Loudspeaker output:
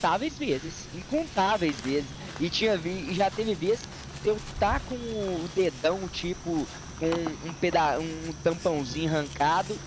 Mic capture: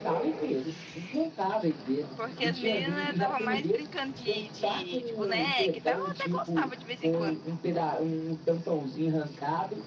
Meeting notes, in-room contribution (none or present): present